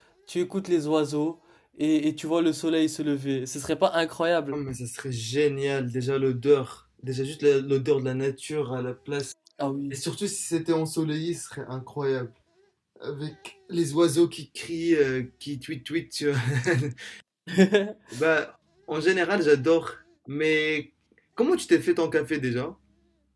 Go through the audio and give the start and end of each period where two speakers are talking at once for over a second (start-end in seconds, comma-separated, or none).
none